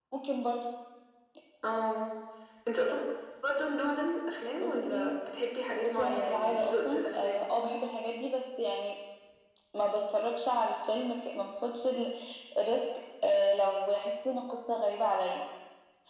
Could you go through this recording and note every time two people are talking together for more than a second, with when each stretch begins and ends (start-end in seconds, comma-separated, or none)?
5.8-7.4